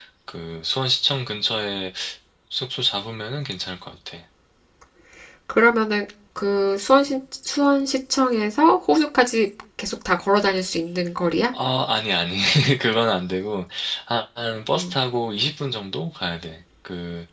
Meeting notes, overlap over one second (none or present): none